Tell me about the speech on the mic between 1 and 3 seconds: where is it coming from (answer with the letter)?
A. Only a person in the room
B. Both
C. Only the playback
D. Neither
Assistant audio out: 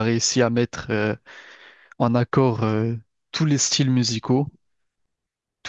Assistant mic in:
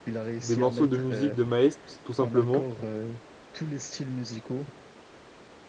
B